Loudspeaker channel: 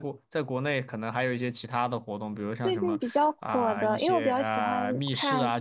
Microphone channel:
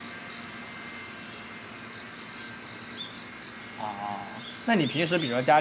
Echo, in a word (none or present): none